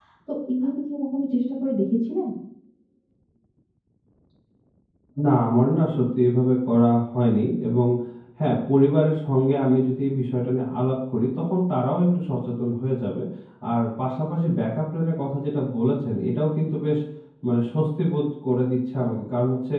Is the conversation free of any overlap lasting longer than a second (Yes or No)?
Yes